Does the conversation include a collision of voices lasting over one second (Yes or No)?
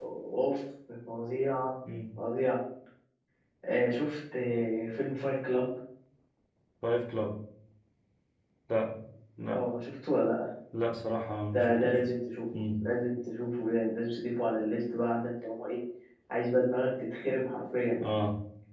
No